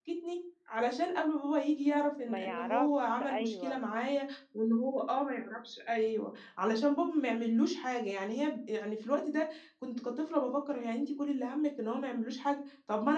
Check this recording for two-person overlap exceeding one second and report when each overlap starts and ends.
2.2-3.8

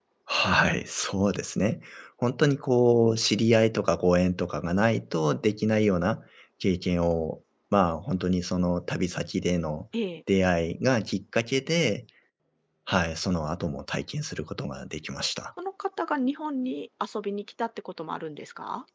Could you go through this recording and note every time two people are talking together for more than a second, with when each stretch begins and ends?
none

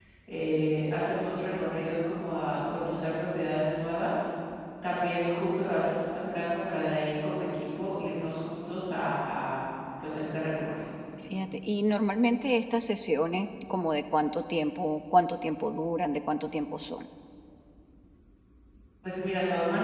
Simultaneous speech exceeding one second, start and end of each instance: none

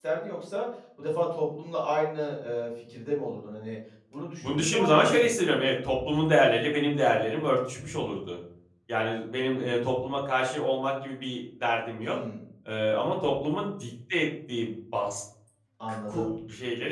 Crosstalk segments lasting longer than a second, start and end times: 4.4-5.6

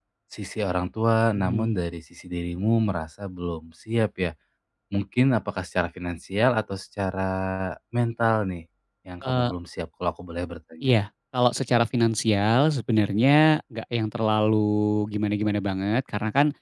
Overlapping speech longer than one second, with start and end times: none

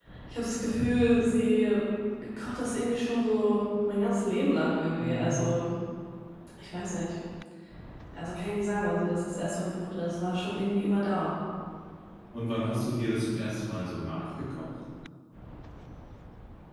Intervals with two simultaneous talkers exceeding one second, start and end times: none

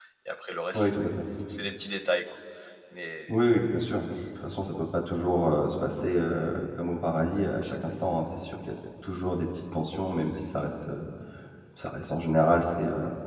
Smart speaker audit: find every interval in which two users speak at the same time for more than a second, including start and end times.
none

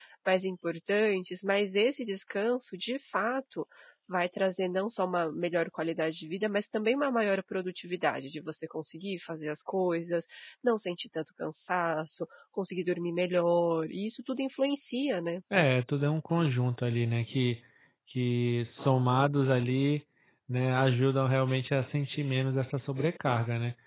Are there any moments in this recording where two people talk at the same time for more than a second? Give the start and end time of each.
none

